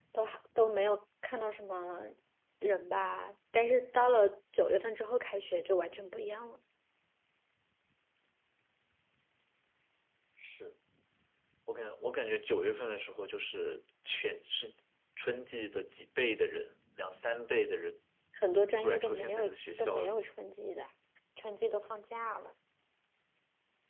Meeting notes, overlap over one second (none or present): present